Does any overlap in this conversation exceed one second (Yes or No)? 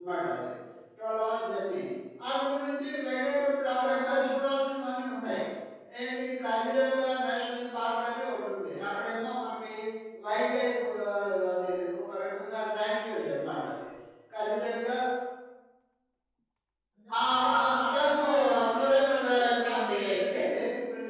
Yes